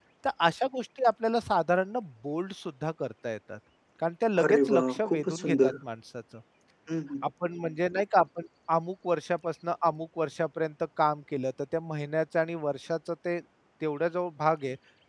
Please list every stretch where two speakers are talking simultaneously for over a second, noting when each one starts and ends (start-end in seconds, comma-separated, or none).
4.4-5.7